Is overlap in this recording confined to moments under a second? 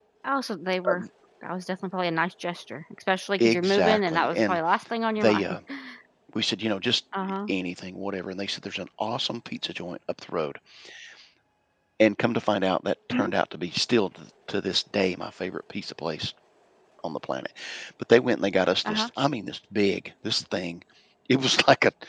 No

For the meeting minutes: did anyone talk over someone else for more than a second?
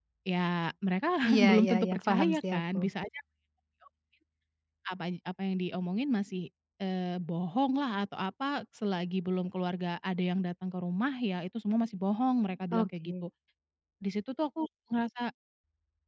Yes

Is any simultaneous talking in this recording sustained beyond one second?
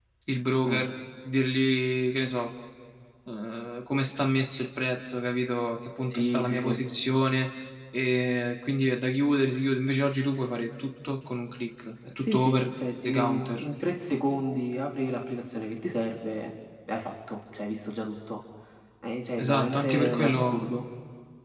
Yes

